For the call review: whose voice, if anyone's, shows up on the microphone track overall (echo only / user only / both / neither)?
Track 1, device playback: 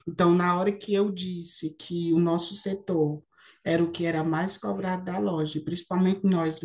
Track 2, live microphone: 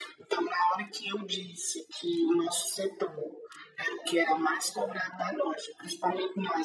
echo only